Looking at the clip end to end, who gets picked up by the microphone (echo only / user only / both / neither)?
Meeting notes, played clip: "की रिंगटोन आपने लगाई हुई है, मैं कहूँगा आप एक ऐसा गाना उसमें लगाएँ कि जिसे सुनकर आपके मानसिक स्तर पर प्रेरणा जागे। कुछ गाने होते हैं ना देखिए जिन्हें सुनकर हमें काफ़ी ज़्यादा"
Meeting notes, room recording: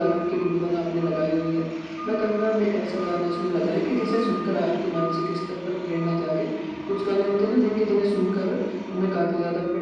echo only